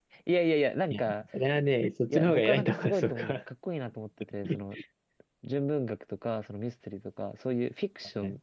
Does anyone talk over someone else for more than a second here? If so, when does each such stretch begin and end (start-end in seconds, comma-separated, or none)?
2.1-3.4